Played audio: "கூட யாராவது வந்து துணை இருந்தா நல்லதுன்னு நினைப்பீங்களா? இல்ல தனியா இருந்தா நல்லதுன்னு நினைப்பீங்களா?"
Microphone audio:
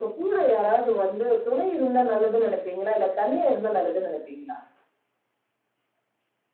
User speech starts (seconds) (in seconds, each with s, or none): none